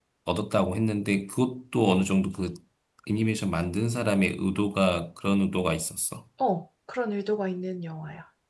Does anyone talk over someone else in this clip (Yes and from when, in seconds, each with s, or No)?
No